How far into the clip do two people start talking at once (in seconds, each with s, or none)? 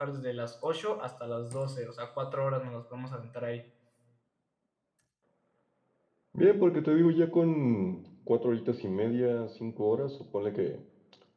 none